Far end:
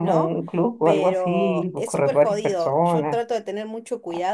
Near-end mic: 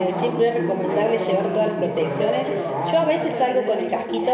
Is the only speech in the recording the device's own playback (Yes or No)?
No